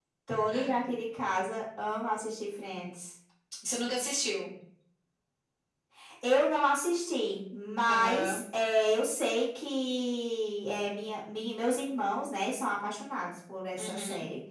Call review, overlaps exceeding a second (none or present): none